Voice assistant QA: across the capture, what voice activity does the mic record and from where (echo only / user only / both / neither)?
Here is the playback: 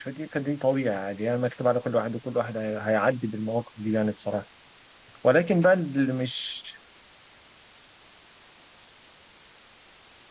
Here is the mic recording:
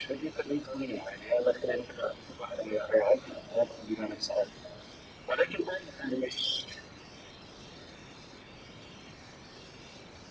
echo only